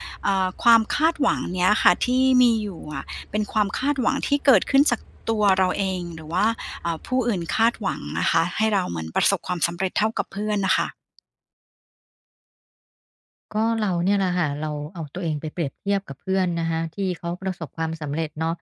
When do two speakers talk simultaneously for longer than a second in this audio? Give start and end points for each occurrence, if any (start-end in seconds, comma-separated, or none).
none